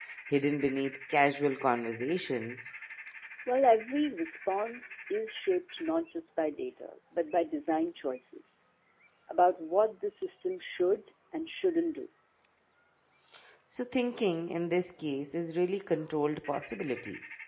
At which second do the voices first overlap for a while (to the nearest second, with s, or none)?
none